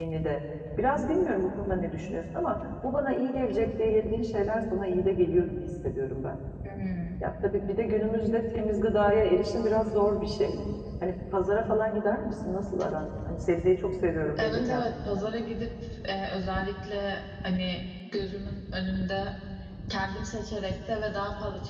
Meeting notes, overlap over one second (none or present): none